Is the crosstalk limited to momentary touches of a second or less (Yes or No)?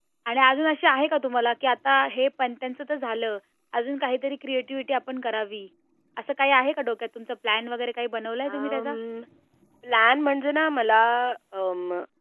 Yes